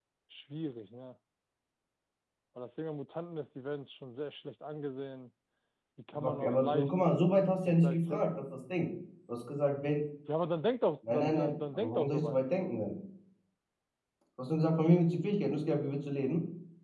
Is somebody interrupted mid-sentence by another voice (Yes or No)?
Yes